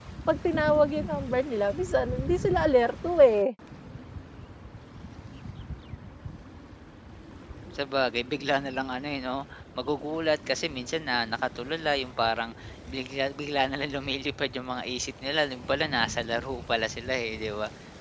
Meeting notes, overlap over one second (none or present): none